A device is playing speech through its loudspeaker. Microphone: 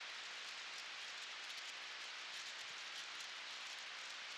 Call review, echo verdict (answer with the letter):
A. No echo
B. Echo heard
A